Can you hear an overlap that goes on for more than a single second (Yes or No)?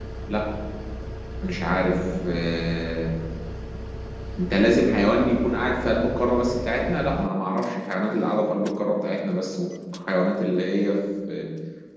No